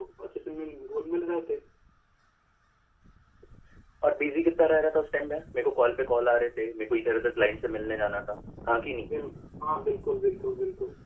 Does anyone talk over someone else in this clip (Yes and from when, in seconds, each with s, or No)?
No